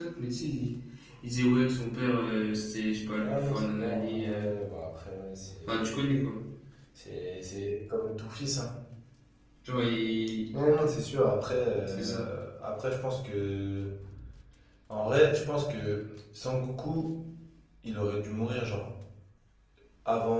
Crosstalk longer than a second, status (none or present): present